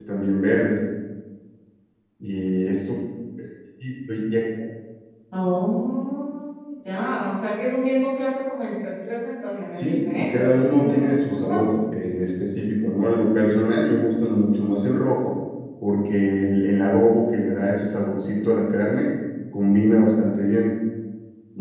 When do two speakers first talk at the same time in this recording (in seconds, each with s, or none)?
9.8 s